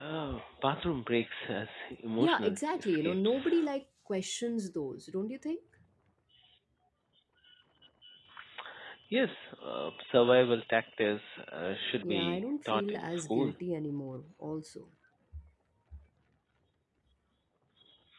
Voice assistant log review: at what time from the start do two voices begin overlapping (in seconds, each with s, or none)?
2.2 s